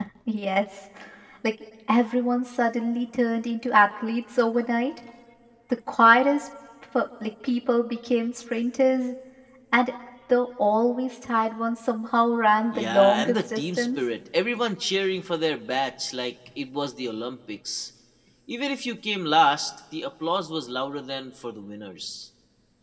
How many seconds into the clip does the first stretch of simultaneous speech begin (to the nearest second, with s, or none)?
13 s